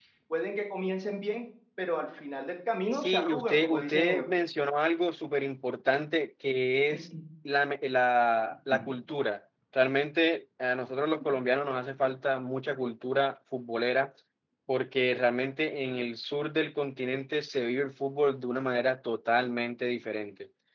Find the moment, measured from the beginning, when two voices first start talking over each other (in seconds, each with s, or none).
2.9 s